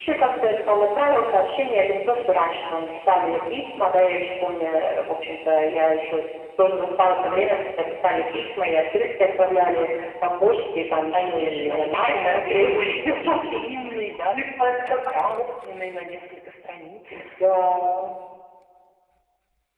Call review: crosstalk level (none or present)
present